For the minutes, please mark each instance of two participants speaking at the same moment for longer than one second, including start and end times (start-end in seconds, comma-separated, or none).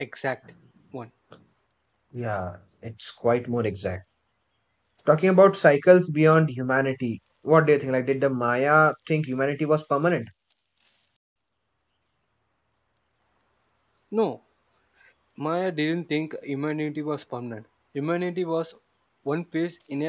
none